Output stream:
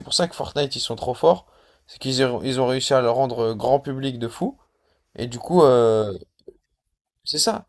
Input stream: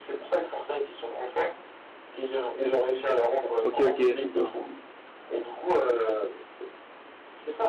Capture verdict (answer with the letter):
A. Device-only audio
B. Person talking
B